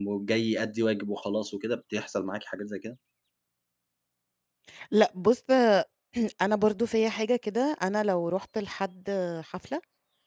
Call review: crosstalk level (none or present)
none